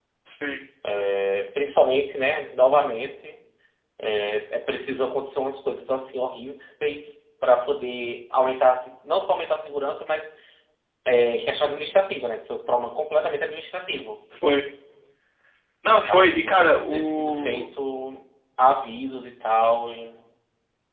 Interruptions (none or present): present